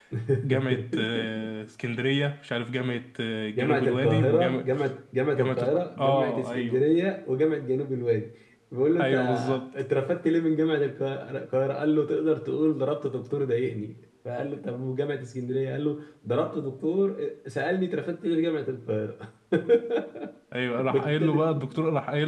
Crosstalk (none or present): present